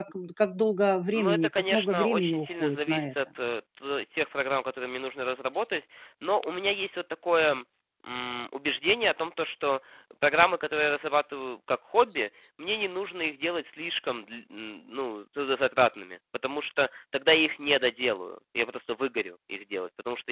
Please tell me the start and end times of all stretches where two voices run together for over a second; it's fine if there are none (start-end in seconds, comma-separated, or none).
1.1-3.1